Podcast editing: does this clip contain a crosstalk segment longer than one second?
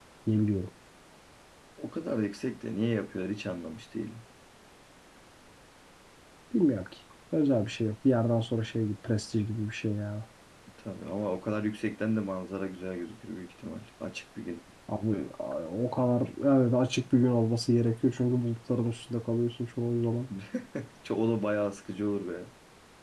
No

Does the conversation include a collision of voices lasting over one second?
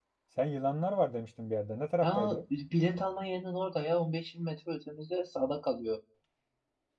No

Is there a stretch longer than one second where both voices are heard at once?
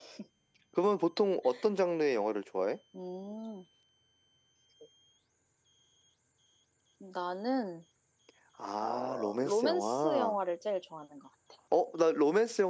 Yes, from 8.8 s

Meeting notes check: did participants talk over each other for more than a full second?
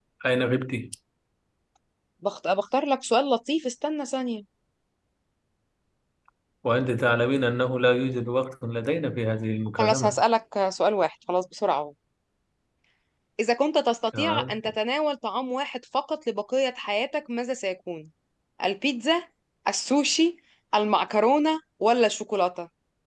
No

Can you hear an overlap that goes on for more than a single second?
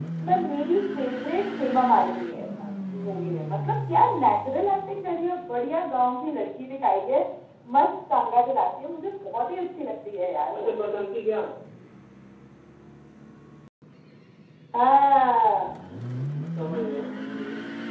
No

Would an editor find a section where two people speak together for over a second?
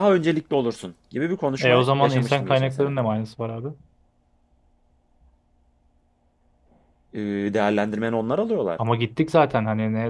Yes, from 1.6 s

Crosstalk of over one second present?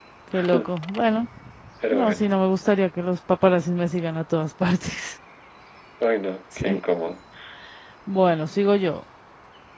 No

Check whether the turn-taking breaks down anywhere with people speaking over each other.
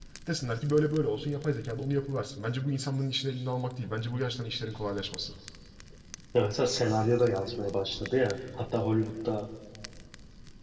No

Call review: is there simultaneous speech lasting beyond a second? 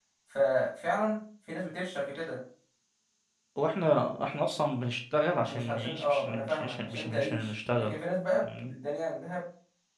Yes, from 5.5 s

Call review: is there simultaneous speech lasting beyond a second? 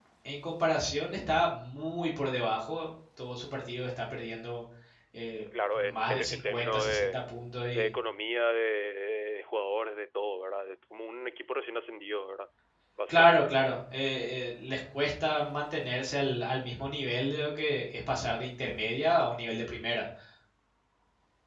Yes, from 5.8 s

